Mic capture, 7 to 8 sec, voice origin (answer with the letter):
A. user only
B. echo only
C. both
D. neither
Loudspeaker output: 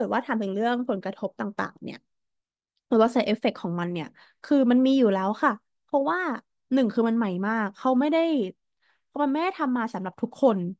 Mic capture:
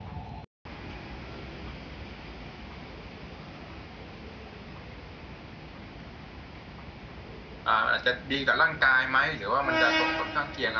A